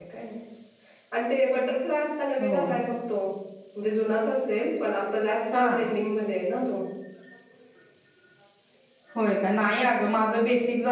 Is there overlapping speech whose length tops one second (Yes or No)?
No